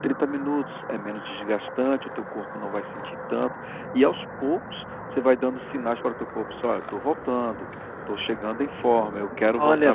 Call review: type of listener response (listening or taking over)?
taking over